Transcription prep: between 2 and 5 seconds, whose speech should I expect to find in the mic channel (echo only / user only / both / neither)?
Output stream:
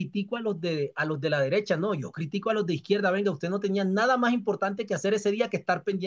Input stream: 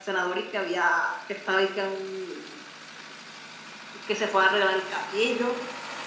user only